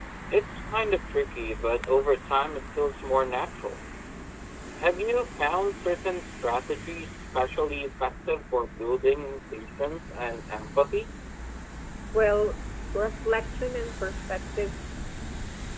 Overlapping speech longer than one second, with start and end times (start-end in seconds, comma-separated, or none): none